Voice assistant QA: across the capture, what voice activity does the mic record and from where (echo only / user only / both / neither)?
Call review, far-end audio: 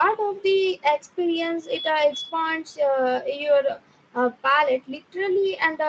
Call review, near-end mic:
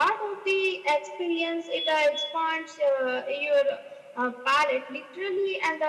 echo only